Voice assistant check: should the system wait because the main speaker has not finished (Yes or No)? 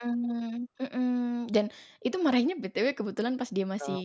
Yes